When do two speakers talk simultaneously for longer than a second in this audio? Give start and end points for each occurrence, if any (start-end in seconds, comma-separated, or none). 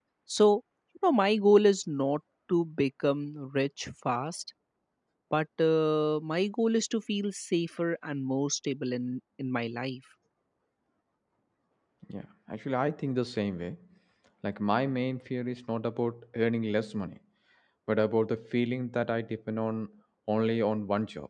none